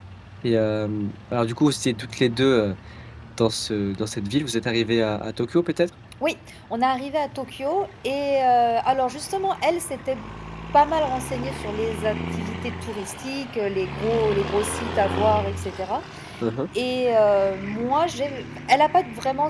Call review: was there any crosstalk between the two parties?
No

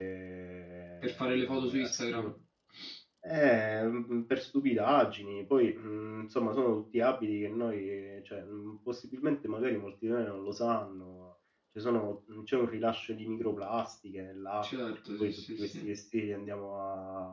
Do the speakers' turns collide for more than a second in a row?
Yes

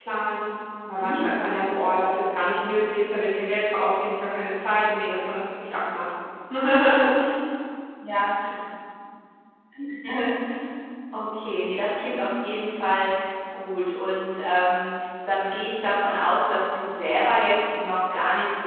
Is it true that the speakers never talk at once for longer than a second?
Yes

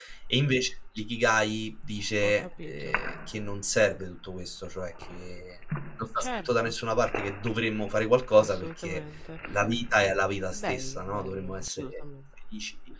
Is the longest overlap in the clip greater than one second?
Yes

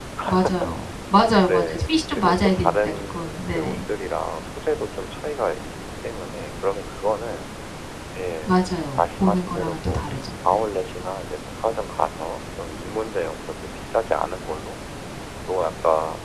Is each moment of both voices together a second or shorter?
No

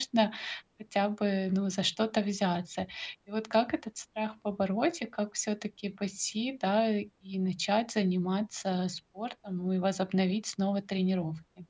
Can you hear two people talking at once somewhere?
No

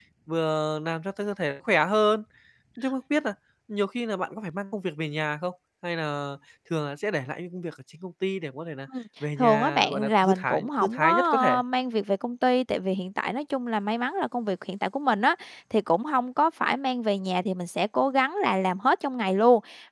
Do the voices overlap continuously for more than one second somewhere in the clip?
Yes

